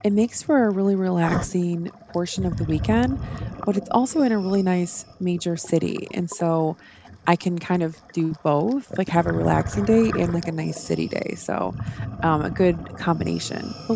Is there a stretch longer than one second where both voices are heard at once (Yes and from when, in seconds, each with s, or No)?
No